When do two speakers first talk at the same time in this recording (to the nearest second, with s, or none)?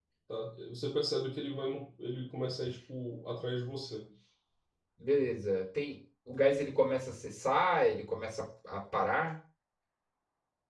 none